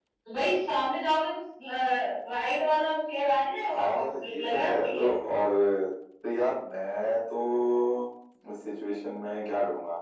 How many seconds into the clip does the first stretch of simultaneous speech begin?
4 s

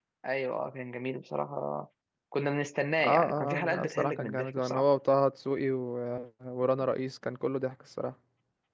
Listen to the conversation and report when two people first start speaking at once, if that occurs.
3 s

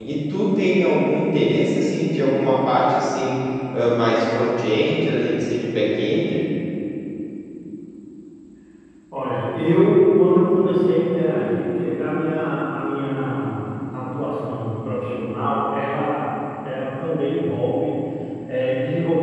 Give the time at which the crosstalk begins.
none

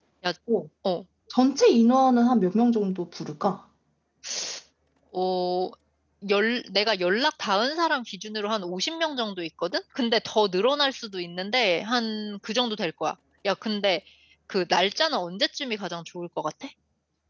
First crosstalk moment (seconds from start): none

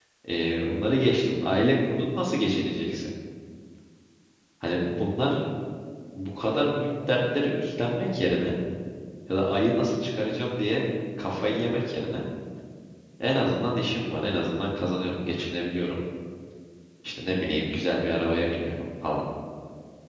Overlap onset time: none

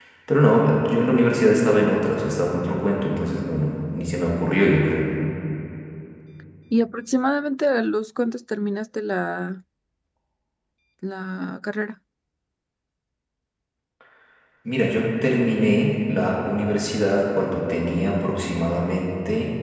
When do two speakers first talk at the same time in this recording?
none

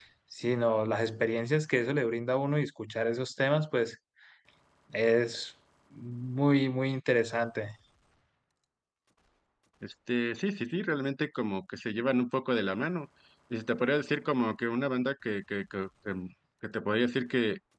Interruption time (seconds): none

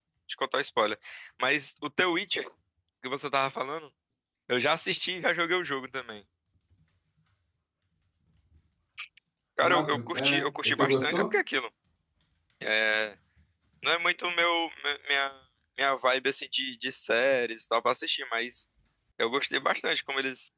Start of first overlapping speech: 10 s

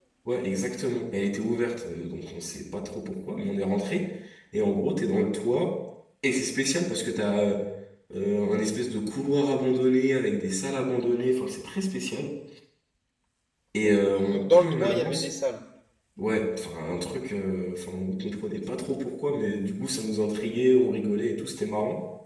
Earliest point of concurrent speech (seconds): 14 s

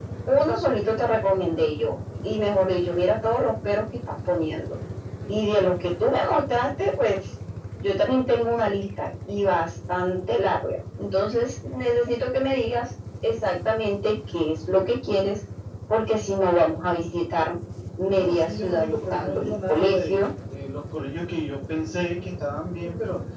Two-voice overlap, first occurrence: 18 s

